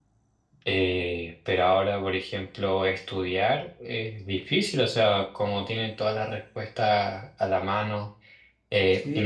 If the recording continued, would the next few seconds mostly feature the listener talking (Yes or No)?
No